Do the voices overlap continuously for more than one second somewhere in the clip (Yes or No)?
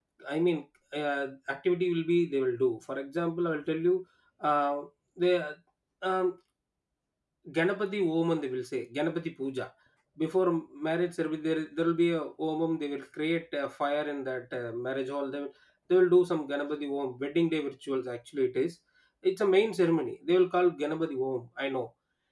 No